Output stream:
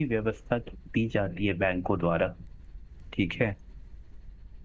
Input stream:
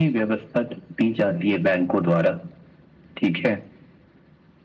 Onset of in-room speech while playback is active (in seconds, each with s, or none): none